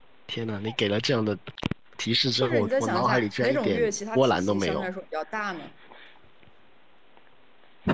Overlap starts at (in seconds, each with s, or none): 2.4 s